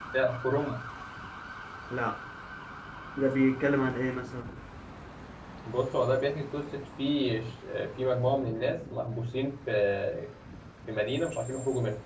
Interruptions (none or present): none